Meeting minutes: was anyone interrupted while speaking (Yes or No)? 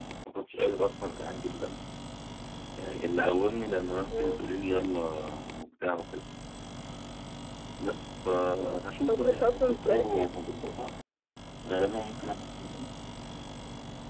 Yes